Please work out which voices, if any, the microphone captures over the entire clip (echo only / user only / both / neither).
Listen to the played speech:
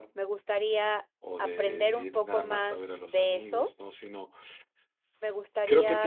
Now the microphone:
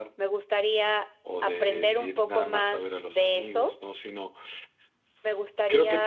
echo only